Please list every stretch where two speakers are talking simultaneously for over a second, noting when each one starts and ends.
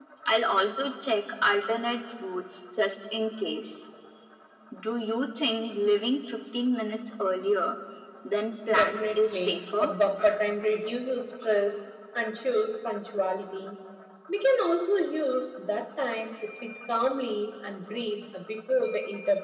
8.7-9.9

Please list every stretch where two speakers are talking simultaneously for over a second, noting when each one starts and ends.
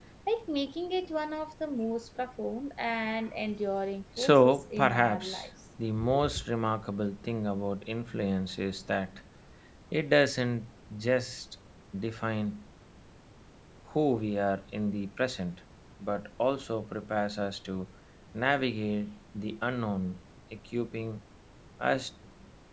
4.2-5.5

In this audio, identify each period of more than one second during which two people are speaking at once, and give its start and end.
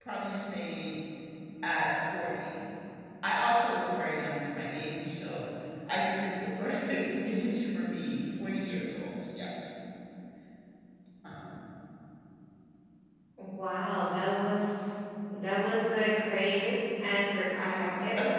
none

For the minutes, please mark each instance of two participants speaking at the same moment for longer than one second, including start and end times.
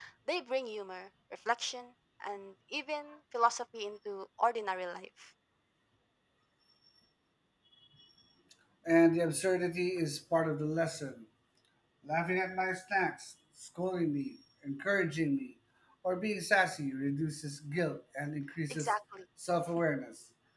none

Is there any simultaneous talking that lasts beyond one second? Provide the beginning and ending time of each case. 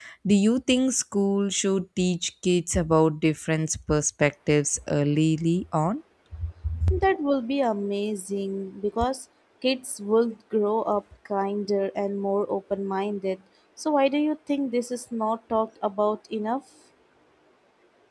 none

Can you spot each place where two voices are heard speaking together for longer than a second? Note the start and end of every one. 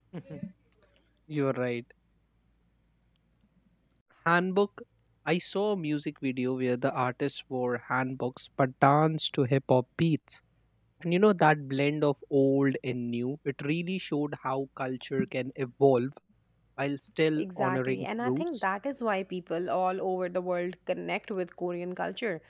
17.4-18.6

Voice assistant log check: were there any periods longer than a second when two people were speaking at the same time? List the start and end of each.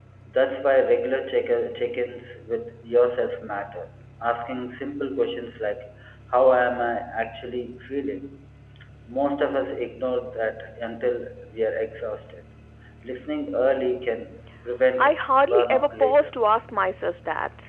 15.0-16.3

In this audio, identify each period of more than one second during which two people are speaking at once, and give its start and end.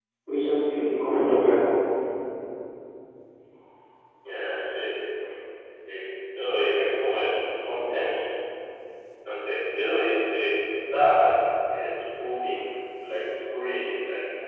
none

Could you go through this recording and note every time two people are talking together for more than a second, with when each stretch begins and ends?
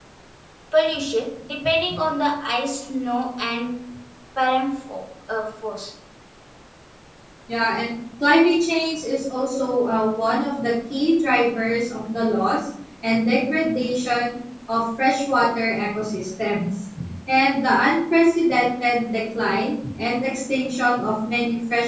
none

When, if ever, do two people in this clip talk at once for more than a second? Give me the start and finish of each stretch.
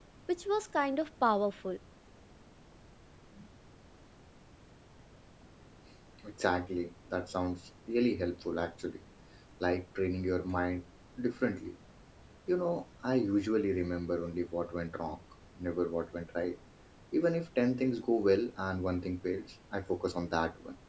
none

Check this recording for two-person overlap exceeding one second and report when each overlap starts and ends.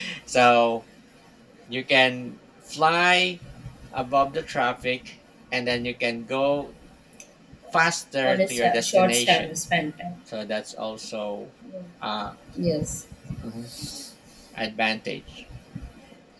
8.2-9.5

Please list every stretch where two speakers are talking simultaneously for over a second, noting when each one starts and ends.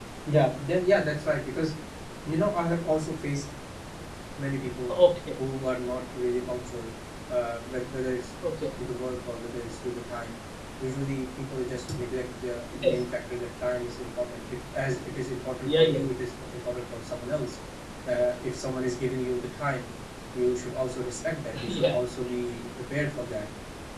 none

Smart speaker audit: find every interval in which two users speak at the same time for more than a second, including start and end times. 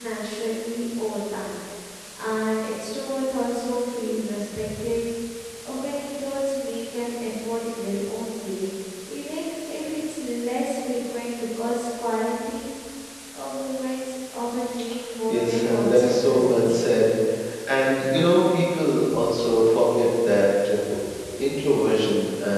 15.3-16.9

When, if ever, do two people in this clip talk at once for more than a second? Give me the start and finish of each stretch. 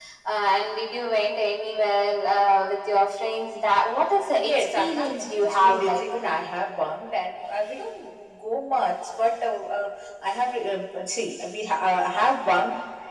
4.4-6.0

